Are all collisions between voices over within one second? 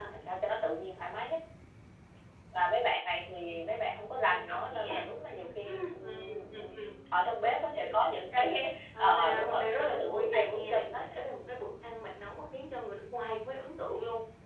No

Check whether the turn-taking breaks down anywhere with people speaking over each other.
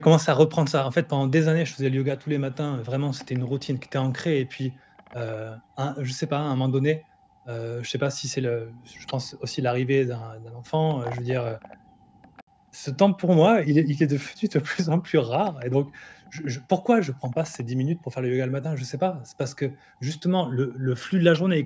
No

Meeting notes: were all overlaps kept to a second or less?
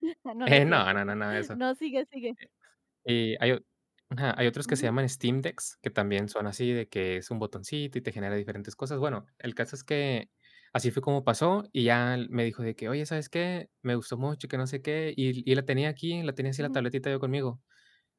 Yes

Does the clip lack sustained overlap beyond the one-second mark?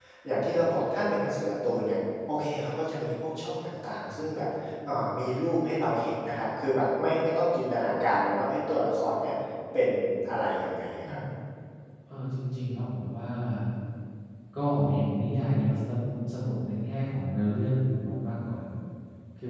Yes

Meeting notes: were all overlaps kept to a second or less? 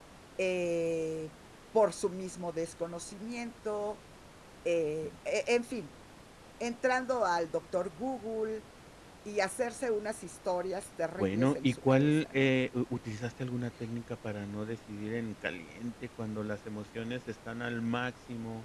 No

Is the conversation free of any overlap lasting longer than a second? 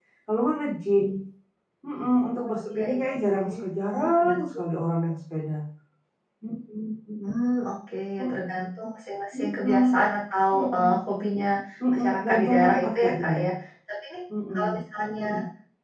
No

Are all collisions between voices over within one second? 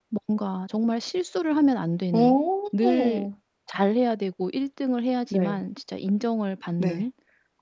Yes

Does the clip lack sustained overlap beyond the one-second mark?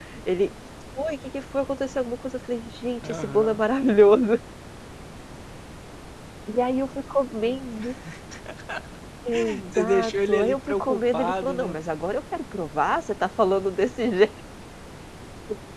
No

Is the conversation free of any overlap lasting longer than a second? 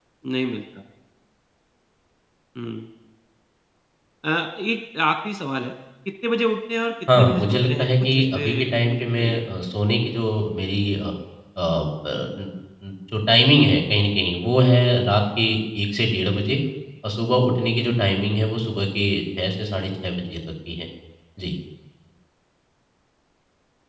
No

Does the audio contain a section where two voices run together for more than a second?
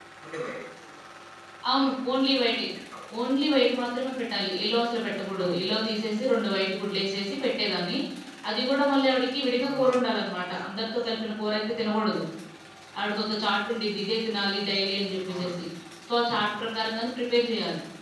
No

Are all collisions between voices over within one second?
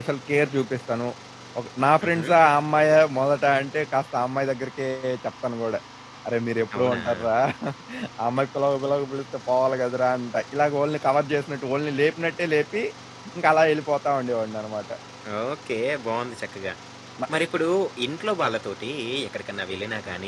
Yes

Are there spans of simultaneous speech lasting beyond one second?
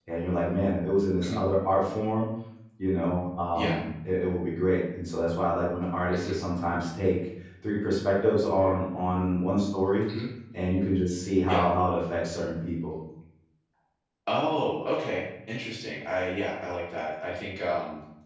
No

